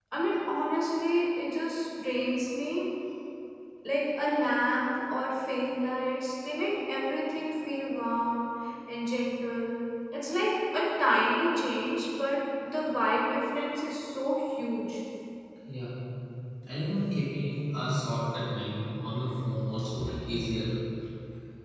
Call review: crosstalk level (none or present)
none